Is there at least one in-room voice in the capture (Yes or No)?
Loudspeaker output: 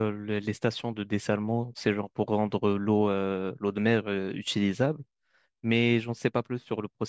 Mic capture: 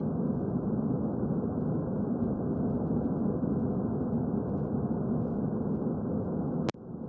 No